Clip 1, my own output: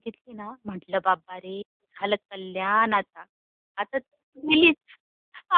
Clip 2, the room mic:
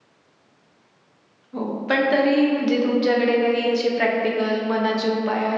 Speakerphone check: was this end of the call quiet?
No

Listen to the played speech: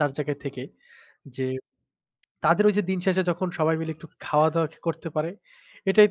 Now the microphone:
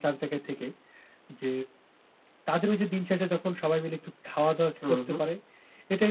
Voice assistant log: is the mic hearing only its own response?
No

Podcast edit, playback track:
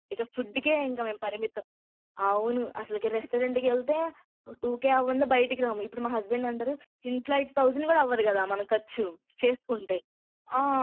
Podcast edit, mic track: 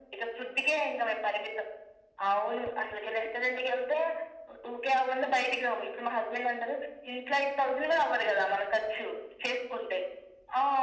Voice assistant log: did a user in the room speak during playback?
No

